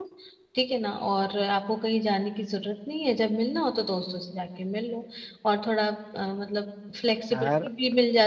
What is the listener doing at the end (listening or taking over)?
listening